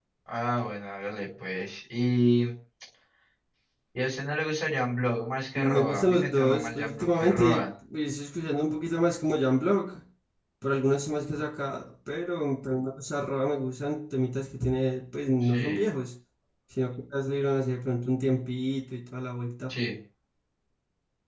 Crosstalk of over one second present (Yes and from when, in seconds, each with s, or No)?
Yes, from 5.5 s